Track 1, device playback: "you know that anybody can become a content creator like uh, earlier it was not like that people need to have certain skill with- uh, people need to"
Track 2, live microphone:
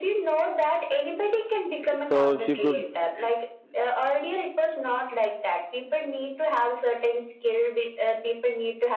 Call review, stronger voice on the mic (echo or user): user